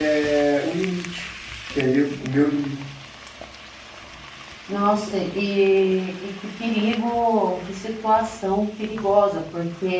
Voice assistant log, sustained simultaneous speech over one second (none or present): none